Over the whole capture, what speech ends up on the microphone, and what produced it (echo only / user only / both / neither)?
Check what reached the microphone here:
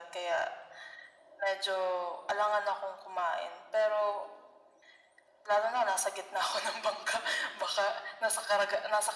echo only